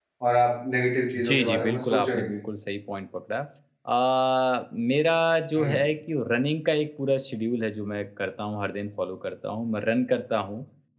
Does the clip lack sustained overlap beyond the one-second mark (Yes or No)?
No